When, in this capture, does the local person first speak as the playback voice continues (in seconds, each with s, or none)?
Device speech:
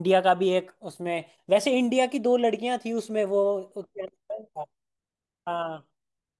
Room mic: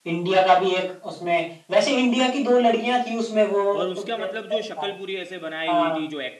3.8 s